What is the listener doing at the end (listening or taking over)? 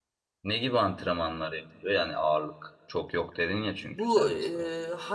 taking over